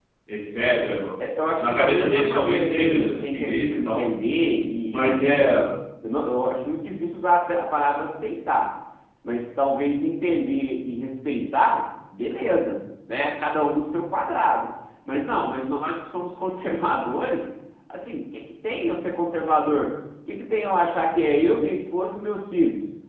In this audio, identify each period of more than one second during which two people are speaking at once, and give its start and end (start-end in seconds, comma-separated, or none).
1.6-4.0